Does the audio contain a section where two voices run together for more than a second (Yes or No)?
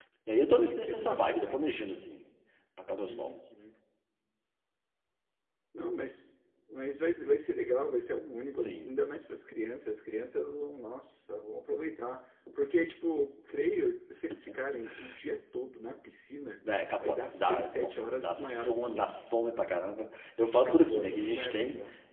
Yes